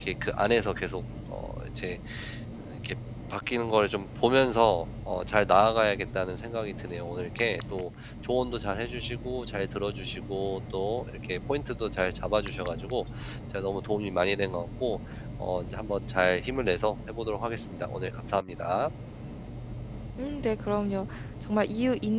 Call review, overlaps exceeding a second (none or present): none